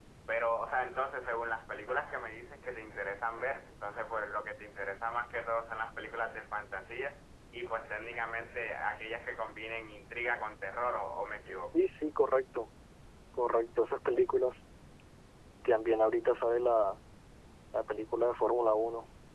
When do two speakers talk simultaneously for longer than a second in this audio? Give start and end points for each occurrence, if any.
none

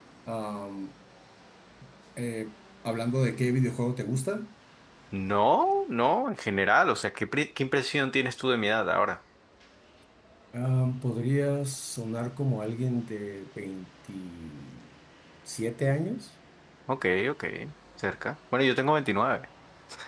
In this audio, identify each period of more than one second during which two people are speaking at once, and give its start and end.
none

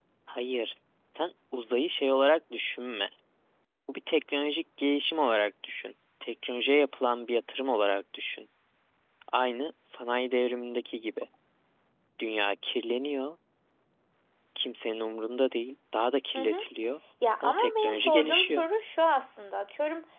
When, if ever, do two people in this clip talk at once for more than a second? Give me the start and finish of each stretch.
17.4-18.6

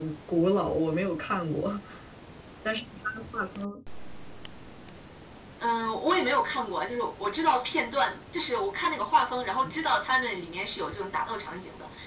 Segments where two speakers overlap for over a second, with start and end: none

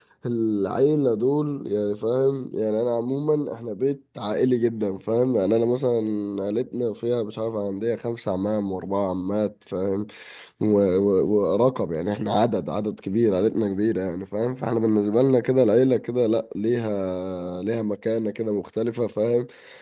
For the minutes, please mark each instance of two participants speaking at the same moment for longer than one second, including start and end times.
none

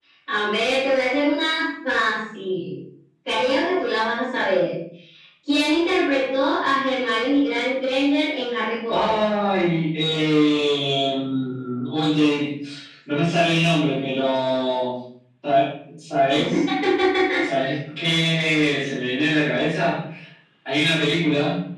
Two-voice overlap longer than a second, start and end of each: none

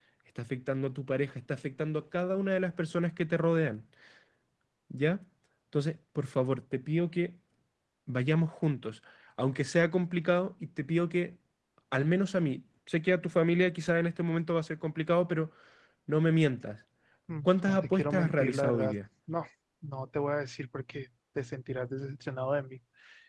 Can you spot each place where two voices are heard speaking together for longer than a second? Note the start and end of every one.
17.4-19.0

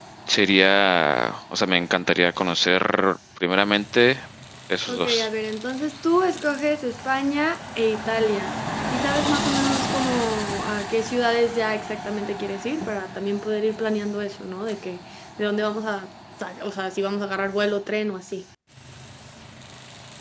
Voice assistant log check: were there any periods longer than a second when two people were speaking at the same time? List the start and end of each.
none

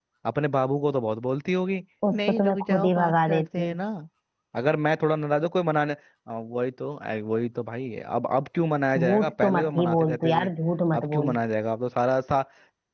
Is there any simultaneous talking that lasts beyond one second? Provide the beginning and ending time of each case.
2.1-3.8, 9.0-10.5

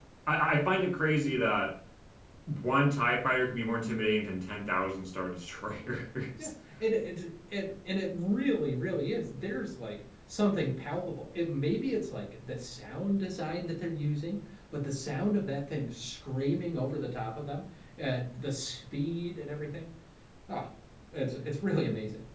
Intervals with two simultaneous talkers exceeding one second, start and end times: none

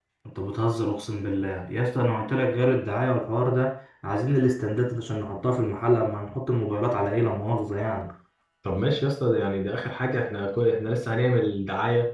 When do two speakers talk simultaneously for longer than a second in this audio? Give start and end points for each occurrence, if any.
none

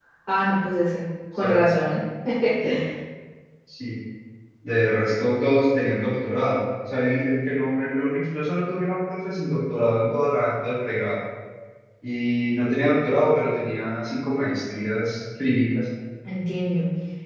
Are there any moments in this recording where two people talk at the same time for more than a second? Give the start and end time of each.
none

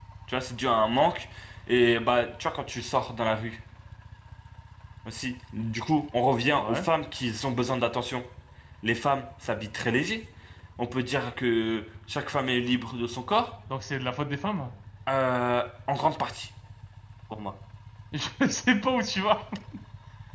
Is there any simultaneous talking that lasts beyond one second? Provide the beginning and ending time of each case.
none

